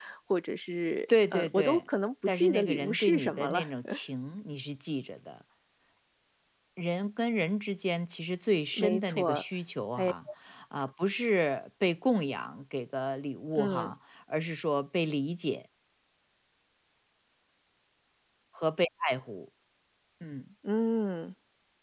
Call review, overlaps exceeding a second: present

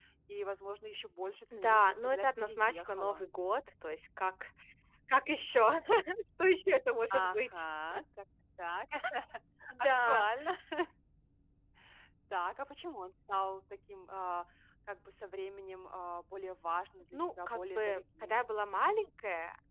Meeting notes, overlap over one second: present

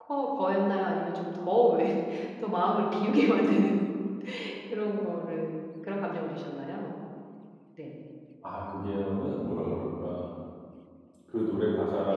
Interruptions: none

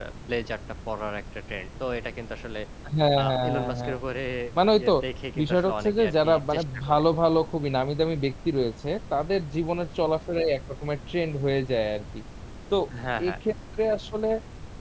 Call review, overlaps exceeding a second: present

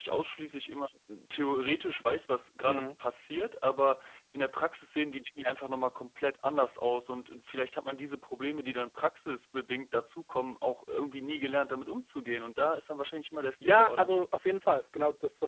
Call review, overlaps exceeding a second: none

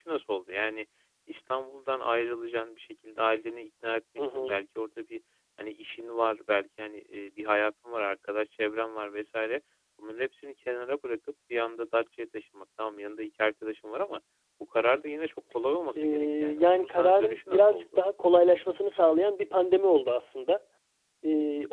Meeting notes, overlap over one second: present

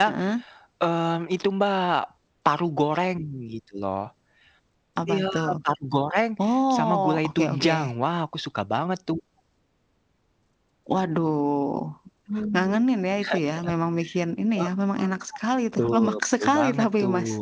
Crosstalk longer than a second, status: present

